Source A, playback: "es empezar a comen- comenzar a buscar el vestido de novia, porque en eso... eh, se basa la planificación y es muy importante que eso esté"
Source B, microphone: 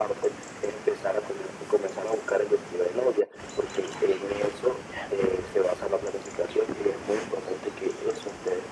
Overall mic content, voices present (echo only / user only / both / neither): echo only